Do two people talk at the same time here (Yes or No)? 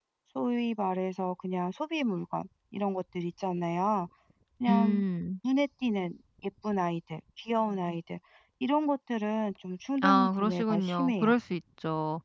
Yes